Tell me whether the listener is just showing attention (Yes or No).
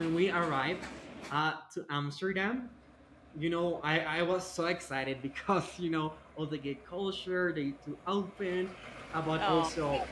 Yes